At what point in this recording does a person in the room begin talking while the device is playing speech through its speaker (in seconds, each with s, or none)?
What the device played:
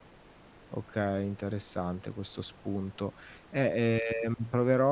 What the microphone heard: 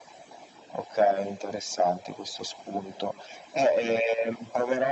none